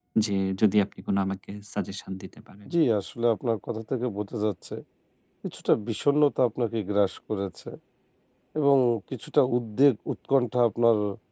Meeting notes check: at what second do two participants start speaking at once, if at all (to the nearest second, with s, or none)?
none